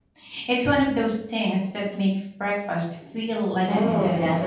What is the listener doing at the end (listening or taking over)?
taking over